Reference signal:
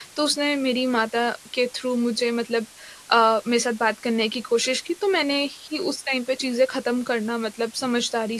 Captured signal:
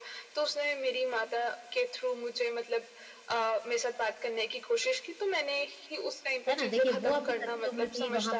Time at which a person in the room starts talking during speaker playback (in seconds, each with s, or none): 6.5 s